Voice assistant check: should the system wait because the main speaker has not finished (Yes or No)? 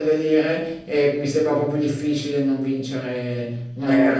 No